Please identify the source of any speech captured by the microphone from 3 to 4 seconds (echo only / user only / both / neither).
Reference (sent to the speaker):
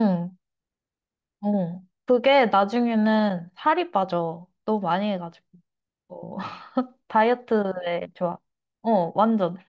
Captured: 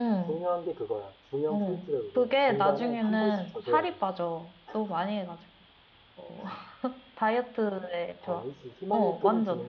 both